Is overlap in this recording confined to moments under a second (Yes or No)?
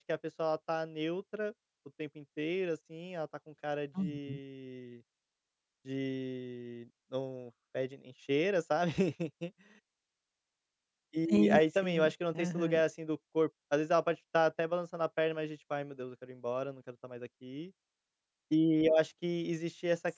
No